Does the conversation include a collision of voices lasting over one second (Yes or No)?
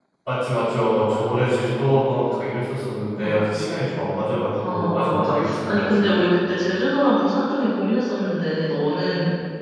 Yes